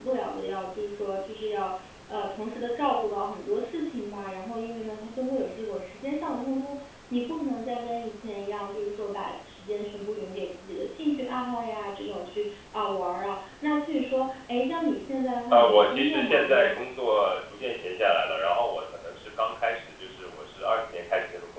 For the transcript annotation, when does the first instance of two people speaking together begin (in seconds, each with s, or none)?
15.5 s